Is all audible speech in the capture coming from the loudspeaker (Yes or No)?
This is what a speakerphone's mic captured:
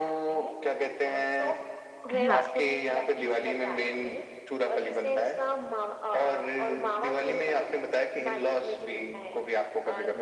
No